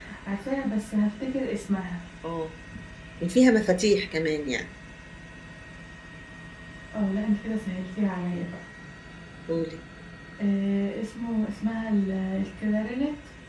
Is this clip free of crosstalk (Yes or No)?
Yes